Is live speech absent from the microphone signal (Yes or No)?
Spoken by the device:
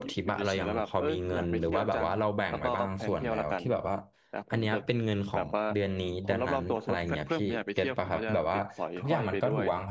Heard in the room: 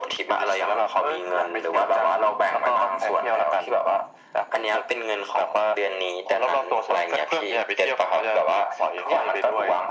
Yes